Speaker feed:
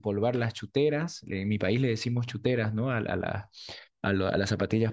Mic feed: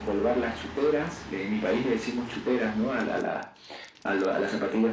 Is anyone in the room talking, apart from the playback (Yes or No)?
No